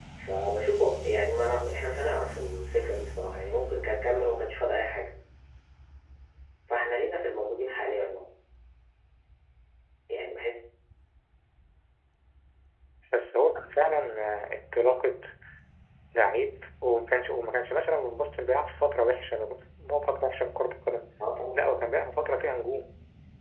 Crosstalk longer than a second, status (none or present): none